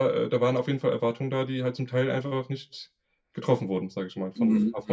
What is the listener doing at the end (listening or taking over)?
taking over